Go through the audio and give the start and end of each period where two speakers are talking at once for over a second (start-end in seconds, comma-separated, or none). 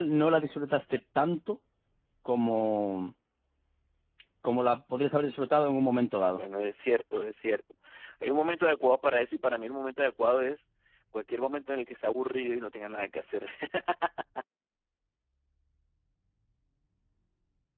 none